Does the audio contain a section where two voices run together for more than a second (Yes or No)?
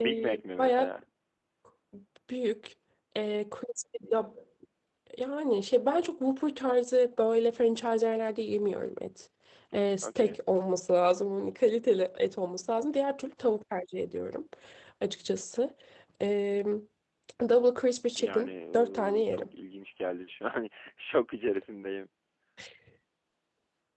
Yes